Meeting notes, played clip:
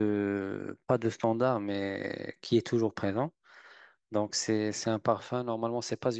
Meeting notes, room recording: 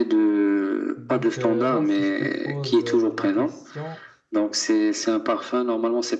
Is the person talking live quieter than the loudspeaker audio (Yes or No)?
Yes